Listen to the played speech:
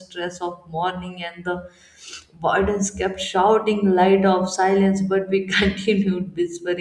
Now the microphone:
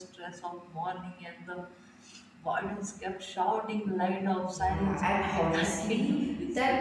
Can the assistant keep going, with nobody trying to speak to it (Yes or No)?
No